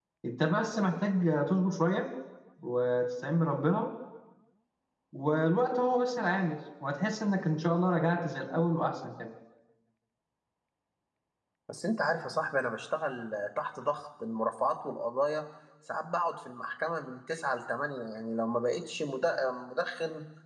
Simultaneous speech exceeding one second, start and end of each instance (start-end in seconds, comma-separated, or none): none